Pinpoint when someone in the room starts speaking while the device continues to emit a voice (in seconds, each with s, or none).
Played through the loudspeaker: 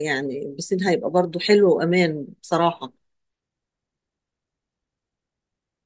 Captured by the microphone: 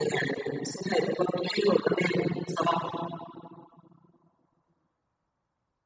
none